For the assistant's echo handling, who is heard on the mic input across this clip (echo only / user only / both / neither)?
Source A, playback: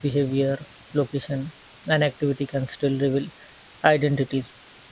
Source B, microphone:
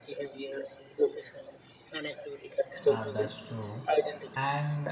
both